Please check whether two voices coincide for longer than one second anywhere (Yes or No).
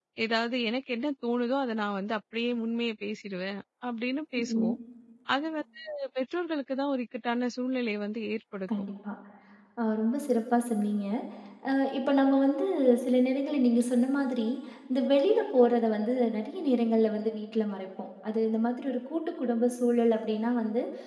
No